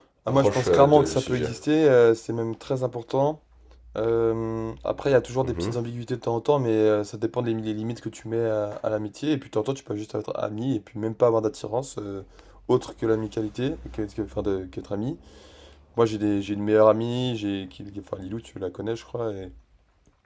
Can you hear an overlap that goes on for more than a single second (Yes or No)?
Yes